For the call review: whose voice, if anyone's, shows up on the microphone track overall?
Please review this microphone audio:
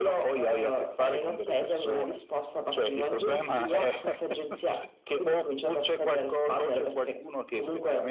echo only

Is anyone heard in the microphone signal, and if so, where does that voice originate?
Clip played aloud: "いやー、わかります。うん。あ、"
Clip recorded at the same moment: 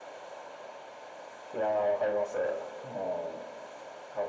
echo only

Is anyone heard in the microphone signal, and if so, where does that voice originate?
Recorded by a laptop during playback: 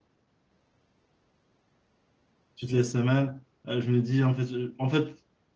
user only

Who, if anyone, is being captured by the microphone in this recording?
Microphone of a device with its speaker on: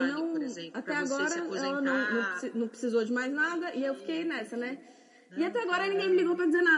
echo only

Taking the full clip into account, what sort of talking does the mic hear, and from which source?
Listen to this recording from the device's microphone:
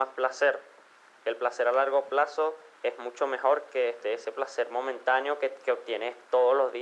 echo only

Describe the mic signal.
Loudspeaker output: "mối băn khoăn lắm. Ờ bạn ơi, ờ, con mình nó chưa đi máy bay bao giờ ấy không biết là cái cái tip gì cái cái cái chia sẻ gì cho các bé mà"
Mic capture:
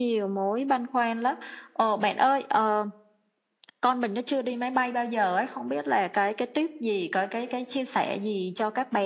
echo only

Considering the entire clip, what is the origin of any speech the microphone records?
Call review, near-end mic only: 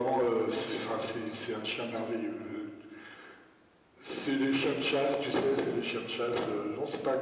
echo only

